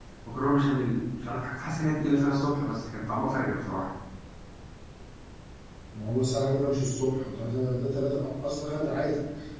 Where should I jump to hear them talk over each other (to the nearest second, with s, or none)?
none